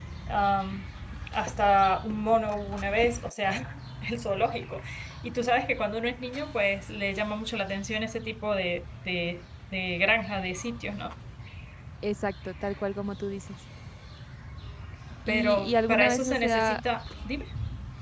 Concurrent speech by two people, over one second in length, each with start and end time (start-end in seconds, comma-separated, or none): 15.3-16.8